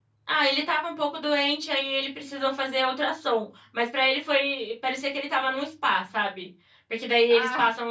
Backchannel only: Yes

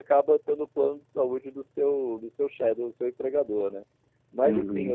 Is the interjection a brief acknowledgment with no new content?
No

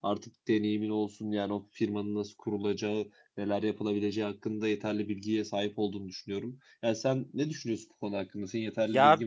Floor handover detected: Yes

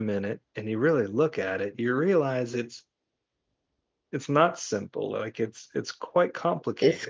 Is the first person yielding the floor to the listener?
Yes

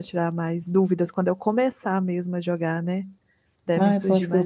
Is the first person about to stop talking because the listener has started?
Yes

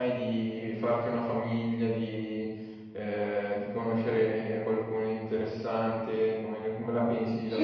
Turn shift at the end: Yes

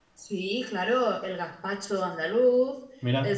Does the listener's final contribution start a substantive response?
No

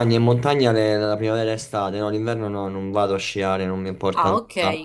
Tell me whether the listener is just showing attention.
No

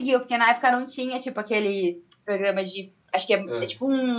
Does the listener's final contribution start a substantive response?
No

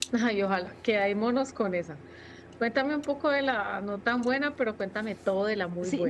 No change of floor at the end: No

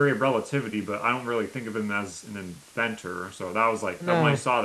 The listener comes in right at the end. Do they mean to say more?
No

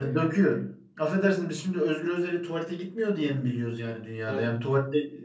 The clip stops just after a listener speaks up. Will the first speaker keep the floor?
Yes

